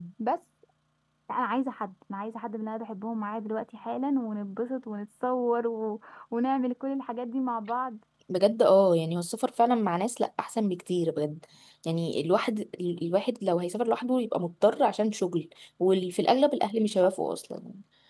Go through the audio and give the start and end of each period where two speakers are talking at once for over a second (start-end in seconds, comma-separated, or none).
none